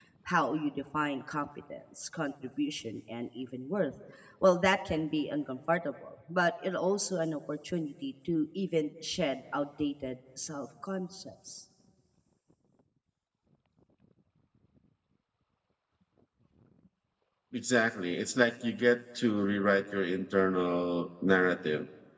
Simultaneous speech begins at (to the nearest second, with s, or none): none